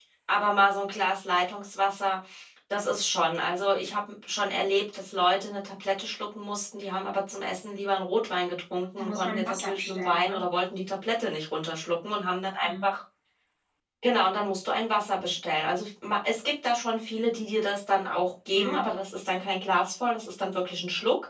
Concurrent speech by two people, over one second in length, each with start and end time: 9.0-10.4

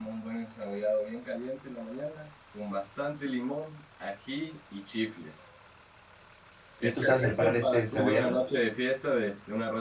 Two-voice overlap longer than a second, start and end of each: 6.8-8.3

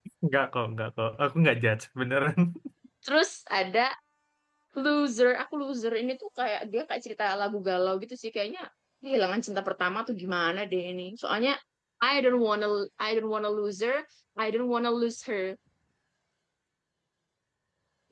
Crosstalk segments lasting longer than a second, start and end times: none

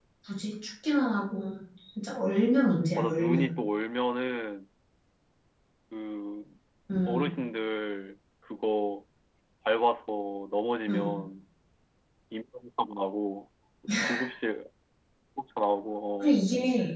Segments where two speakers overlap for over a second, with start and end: none

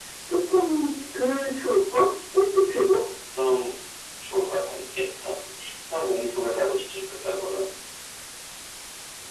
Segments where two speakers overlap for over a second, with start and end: none

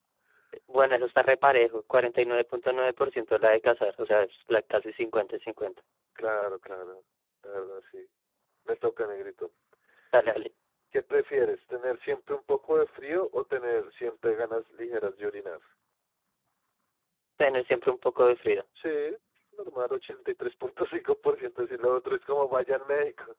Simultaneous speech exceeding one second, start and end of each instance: none

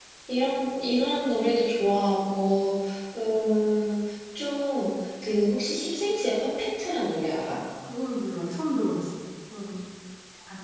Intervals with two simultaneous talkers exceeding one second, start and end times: none

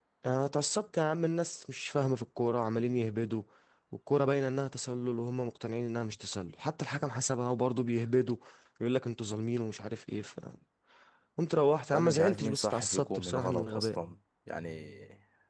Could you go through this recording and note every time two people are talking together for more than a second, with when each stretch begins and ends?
11.9-14.0

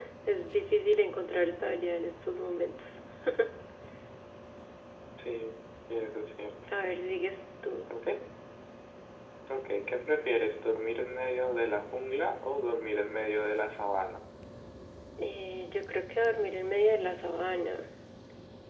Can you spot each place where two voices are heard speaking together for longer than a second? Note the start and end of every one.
none

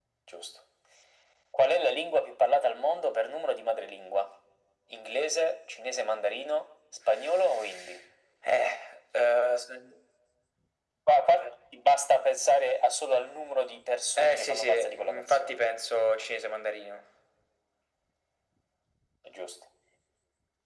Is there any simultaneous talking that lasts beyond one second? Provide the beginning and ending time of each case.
14.2-15.6

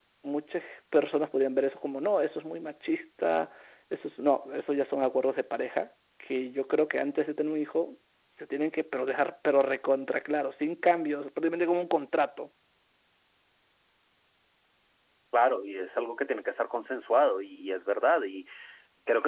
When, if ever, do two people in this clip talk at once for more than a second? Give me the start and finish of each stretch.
none

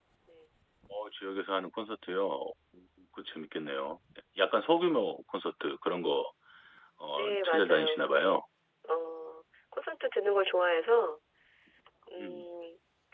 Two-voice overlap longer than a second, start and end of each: 7.2-8.4

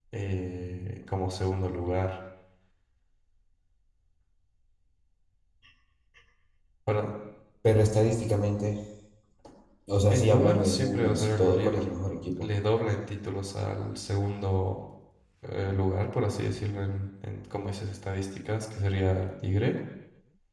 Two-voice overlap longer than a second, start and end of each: 10.1-11.8

